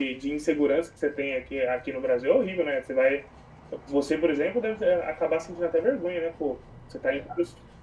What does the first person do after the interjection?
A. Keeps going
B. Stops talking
A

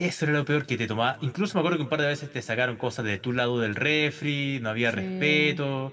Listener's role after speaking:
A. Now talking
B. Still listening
B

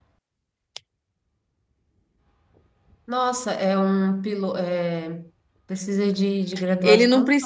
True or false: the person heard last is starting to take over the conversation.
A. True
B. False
A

